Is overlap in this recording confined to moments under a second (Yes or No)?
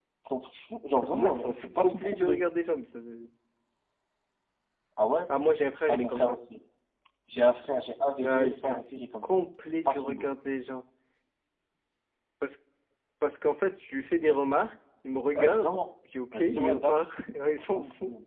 No